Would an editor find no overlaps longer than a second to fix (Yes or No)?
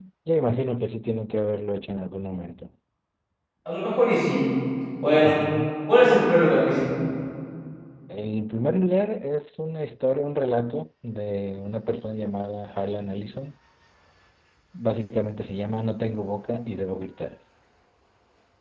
Yes